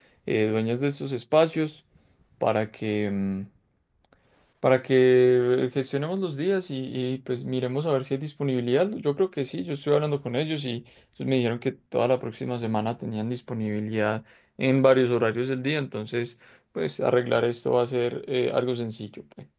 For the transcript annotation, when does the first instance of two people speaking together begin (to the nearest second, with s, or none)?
none